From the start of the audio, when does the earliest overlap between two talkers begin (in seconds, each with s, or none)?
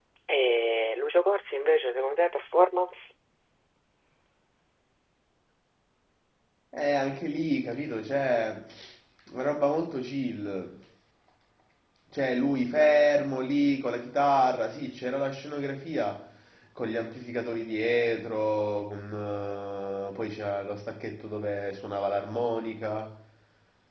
none